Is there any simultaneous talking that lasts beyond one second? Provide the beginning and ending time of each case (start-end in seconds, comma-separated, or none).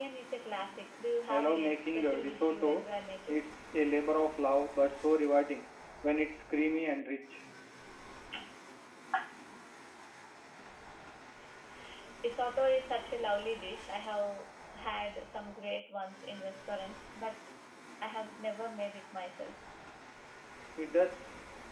1.3-2.8